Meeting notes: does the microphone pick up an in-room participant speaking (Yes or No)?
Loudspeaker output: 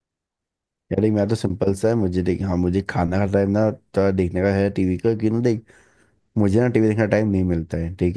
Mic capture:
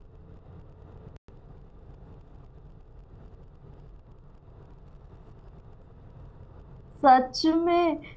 Yes